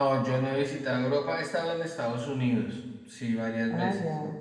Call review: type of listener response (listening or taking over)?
taking over